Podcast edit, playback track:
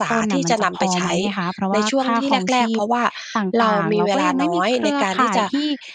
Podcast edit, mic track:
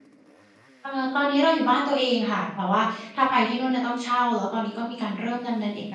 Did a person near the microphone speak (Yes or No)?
Yes